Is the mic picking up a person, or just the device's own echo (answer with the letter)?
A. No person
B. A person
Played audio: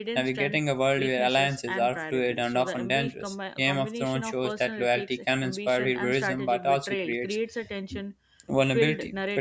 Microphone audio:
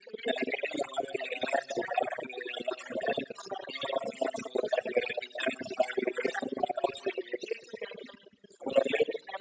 A